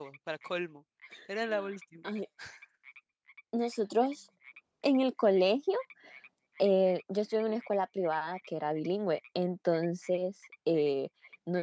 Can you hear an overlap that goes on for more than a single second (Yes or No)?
No